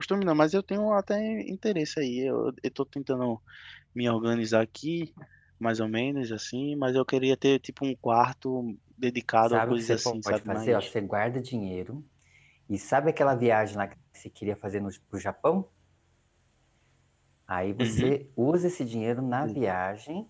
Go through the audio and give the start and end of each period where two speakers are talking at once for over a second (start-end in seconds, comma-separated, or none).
9.5-10.8